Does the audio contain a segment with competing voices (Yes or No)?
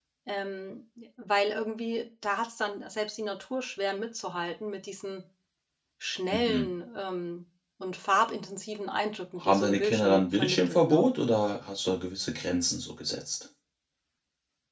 Yes